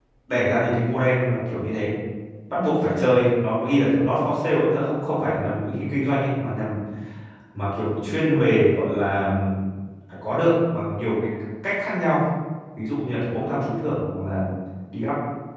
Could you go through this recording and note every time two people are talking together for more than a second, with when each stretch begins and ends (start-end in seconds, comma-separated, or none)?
none